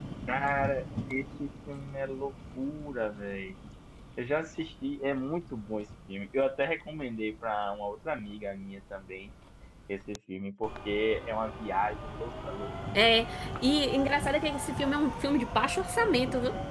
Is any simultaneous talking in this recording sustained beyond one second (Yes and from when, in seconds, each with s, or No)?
No